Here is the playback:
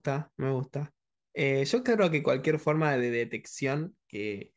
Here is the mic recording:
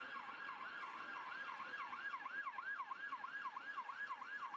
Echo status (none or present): none